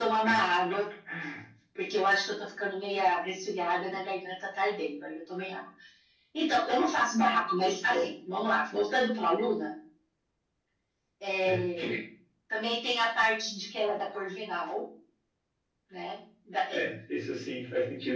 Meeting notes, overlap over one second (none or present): none